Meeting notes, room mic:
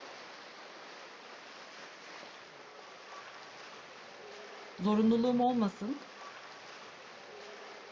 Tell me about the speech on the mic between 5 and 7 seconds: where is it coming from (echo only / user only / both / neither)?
user only